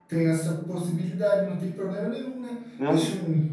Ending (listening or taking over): listening